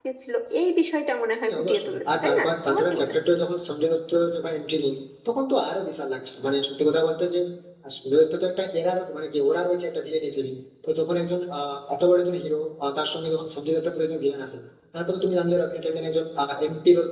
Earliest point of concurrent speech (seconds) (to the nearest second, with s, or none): 1 s